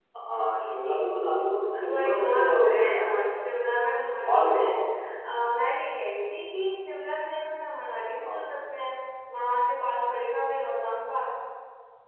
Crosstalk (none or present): present